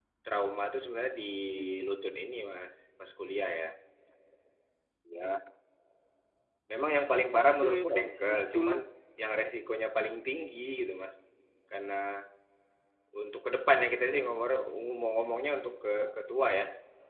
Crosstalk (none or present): present